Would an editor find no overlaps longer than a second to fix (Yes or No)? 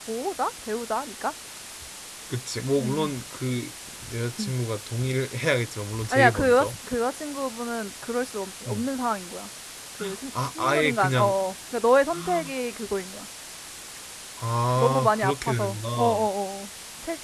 No